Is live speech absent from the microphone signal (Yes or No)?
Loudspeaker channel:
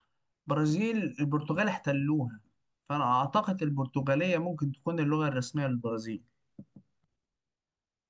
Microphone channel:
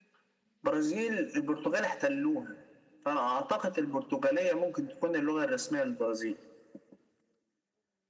Yes